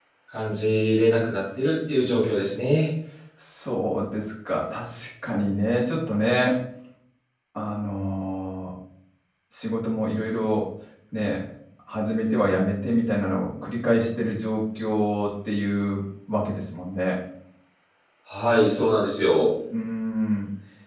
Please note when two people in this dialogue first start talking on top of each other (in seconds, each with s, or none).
none